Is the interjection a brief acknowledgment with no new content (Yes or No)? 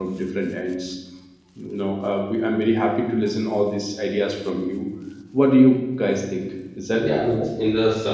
No